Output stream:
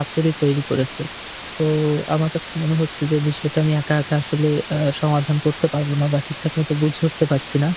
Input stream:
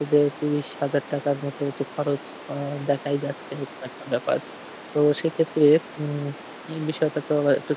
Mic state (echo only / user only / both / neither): user only